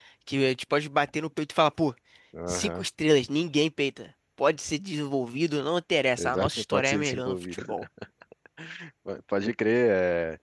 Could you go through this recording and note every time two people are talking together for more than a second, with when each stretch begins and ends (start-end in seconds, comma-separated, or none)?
6.2-7.6